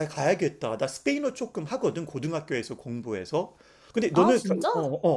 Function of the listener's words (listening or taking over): listening